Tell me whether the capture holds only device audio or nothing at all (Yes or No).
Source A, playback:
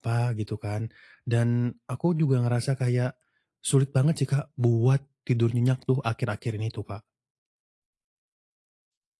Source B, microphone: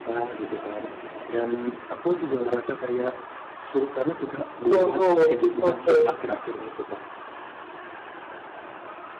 No